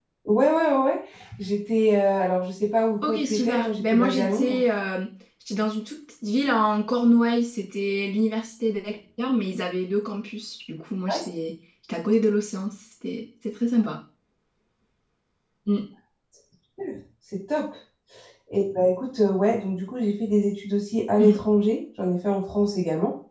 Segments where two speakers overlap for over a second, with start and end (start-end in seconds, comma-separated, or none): 3.0-4.6